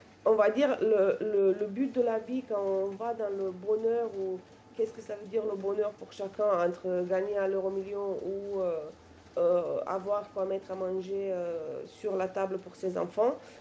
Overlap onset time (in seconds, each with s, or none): none